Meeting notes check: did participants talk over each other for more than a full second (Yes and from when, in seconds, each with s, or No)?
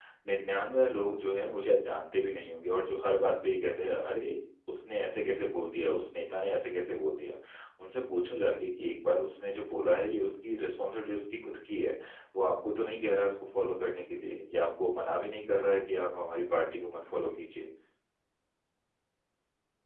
No